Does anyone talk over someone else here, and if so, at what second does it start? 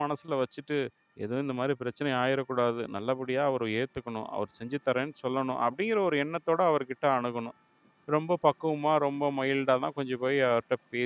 none

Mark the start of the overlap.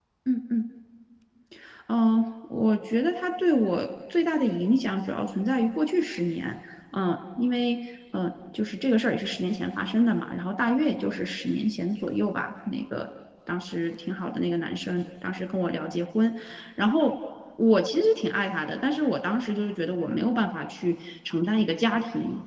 none

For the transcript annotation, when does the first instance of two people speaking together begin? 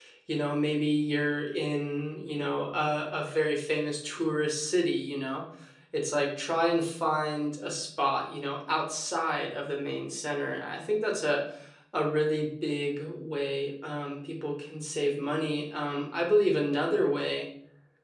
none

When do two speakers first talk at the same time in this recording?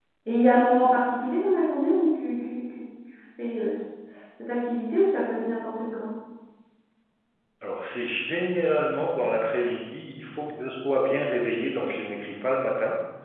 none

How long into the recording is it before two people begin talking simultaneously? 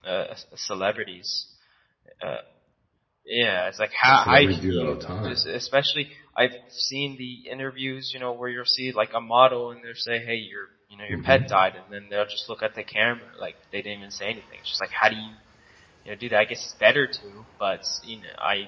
4.1 s

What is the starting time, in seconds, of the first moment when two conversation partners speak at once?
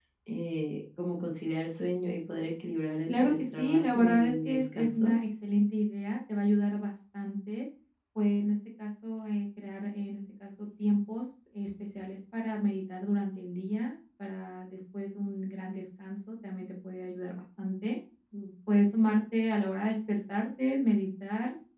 3.1 s

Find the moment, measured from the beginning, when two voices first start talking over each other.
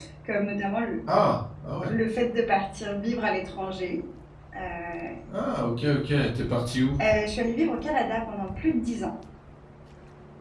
none

